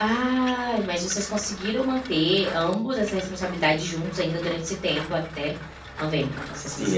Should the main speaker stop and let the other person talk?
Yes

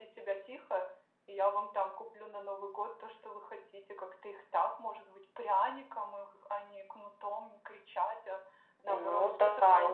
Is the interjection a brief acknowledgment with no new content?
No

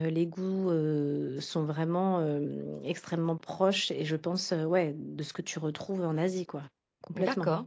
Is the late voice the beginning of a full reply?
Yes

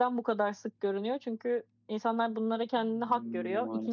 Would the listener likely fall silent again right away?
Yes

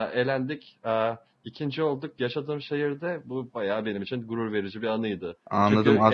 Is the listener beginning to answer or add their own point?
Yes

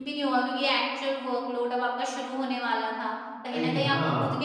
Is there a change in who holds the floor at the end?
No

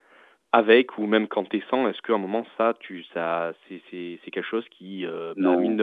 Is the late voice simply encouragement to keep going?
Yes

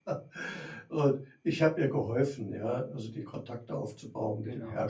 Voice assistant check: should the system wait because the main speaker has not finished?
Yes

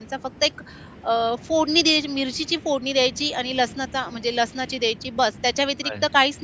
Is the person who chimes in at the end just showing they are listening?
Yes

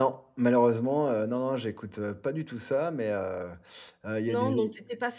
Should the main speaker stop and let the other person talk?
Yes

